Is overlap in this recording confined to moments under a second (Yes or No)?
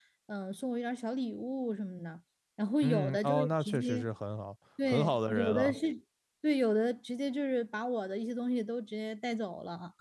No